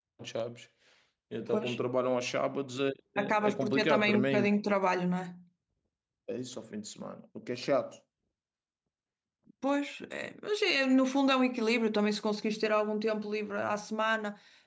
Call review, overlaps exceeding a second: present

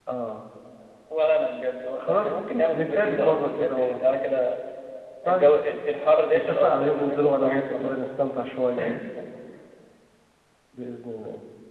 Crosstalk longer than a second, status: present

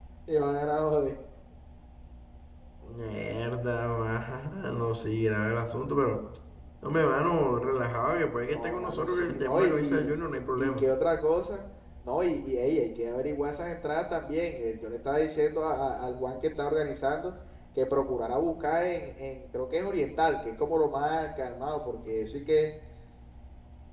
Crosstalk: present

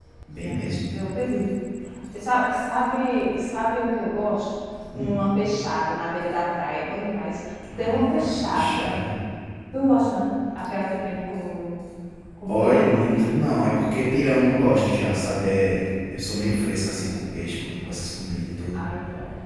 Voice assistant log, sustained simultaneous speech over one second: present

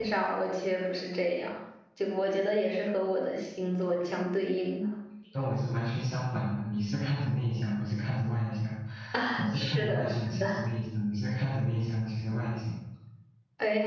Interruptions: present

